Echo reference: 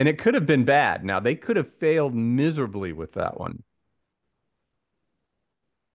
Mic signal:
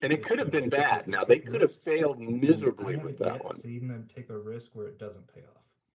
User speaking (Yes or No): Yes